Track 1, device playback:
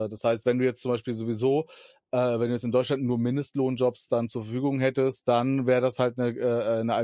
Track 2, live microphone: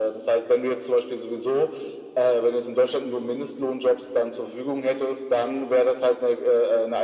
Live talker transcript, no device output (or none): none